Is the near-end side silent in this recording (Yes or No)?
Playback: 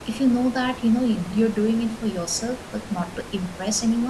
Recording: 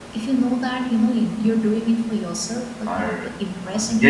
No